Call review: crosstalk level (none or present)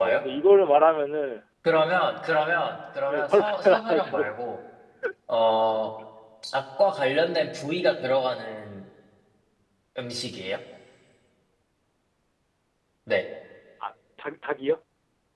present